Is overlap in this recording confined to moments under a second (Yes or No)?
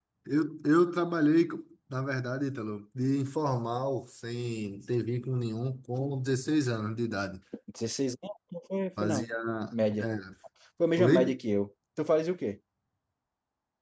Yes